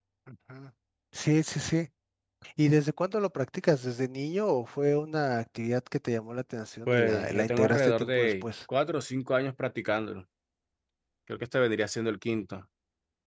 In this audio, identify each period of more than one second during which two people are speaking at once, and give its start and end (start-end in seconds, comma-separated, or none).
6.9-8.4